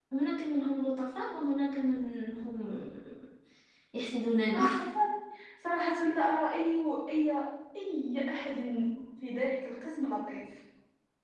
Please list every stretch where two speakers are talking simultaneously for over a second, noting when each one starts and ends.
none

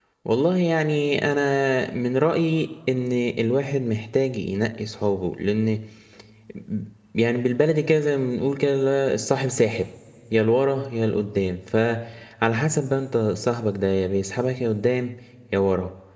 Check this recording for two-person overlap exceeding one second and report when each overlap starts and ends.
none

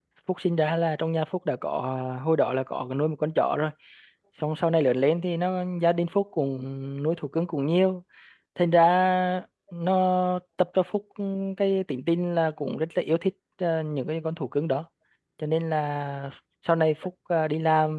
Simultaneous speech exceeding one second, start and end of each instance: none

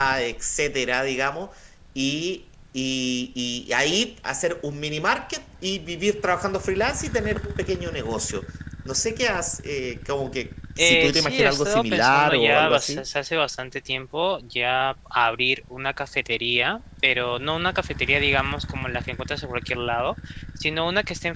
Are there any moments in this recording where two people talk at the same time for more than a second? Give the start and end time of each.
10.8-13.0

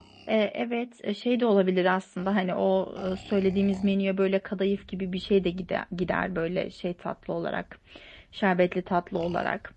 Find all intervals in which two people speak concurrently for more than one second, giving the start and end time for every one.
none

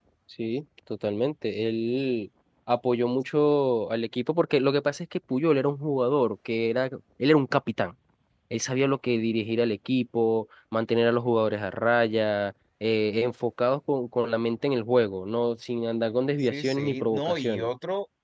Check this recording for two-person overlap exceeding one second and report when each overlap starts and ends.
16.4-17.7

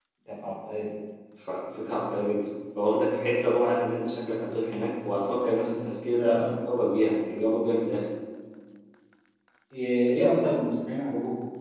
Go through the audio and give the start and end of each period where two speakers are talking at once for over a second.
none

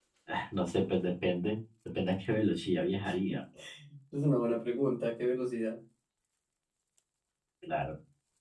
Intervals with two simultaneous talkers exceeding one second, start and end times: none

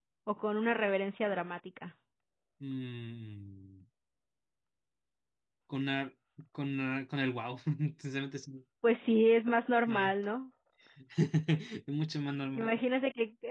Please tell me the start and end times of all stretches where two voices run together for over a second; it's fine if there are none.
none

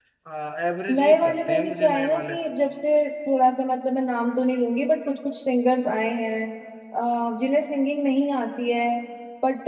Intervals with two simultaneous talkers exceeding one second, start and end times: 0.9-2.3

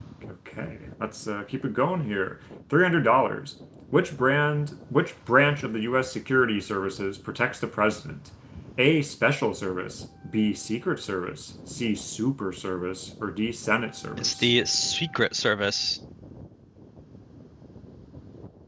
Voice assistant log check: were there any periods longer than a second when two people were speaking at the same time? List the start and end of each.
none

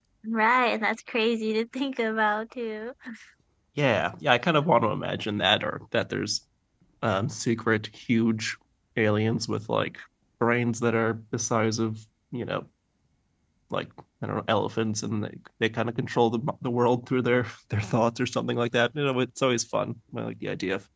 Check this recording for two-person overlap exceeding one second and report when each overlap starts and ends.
none

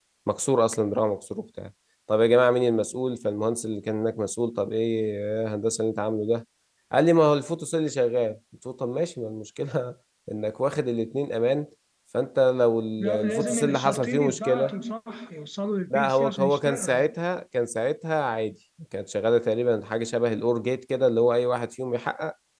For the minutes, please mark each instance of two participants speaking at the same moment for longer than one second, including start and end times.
13.0-14.7, 15.9-17.1

